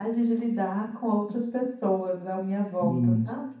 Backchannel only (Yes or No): No